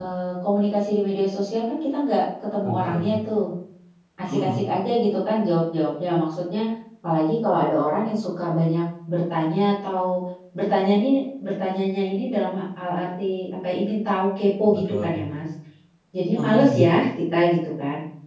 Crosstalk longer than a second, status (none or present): none